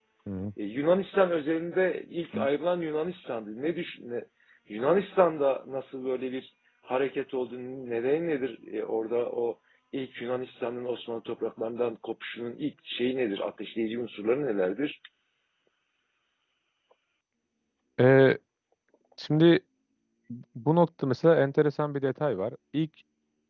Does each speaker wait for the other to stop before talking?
Yes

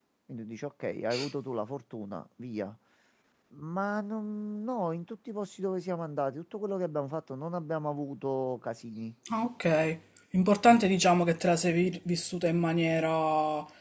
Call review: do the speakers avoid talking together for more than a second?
Yes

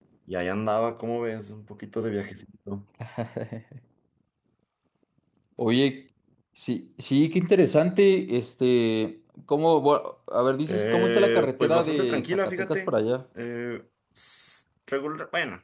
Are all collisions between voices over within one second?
No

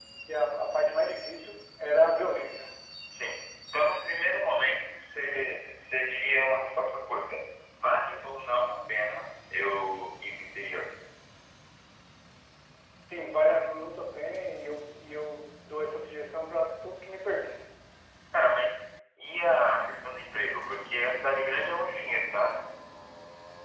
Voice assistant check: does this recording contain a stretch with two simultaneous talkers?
No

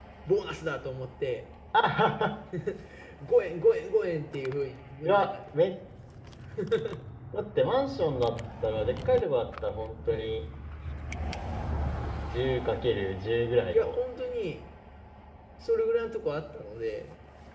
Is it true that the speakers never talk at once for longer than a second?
Yes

